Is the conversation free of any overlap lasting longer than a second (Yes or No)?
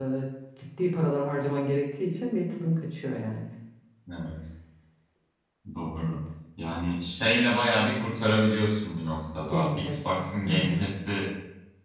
No